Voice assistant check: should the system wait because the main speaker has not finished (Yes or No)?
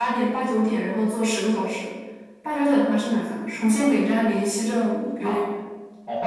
No